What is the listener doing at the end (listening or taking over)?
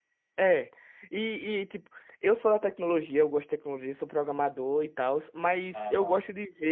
listening